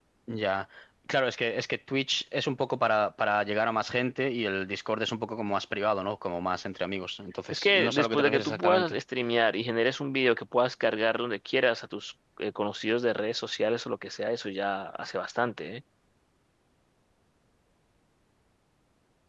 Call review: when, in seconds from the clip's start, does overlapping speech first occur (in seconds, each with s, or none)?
7.5 s